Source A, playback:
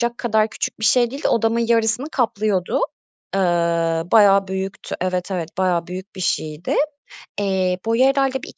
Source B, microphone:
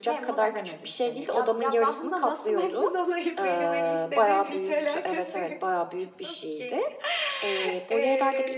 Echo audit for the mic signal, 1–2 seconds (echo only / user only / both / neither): both